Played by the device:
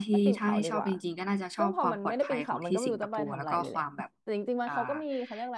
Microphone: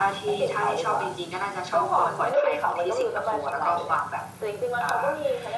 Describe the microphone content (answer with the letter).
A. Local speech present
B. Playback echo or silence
B